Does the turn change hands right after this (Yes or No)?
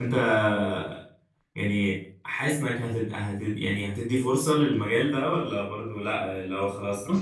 Yes